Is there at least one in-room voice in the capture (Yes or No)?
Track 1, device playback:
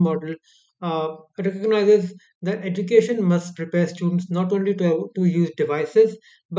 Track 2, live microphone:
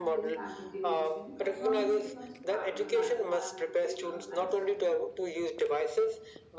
Yes